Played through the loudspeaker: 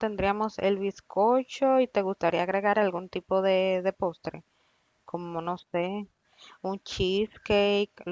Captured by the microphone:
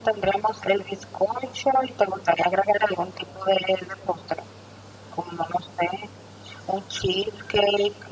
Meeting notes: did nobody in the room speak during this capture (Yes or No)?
Yes